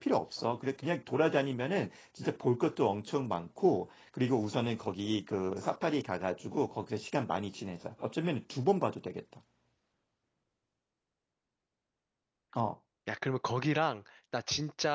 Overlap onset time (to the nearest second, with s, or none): none